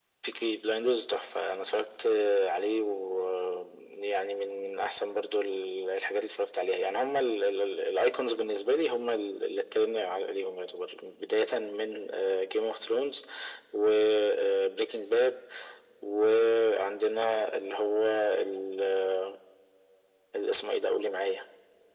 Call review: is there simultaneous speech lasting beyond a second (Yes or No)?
No